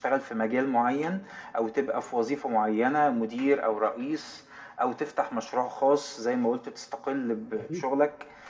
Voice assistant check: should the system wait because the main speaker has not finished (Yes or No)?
Yes